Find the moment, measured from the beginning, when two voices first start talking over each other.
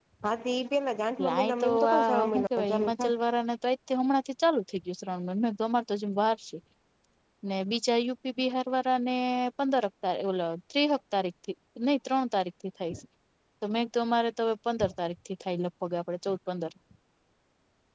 1.4 s

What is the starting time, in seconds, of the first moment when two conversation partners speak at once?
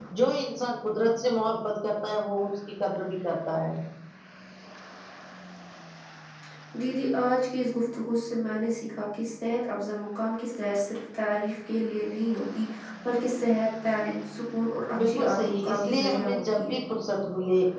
14.9 s

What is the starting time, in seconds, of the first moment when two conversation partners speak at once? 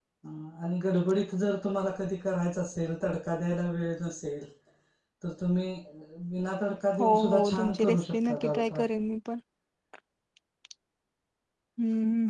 7.0 s

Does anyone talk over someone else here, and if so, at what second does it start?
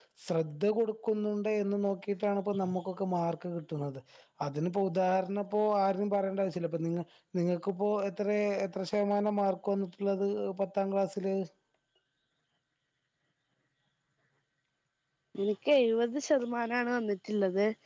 none

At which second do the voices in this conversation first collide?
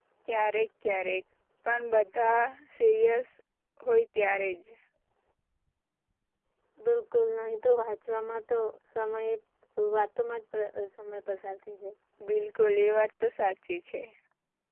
none

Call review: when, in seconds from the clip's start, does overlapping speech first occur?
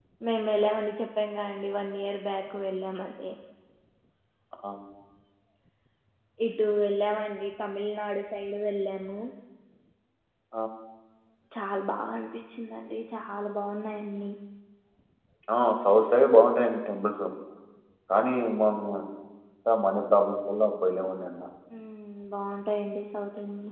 none

